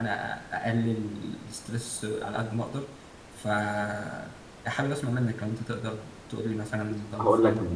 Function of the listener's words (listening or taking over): taking over